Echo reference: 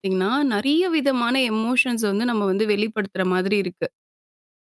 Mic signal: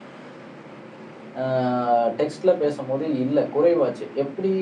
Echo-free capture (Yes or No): Yes